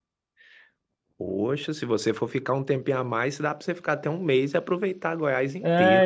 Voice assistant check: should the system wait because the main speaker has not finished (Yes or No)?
No